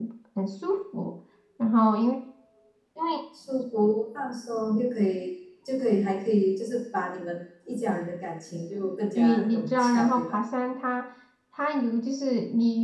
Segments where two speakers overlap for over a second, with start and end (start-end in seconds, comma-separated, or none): 9.2-10.4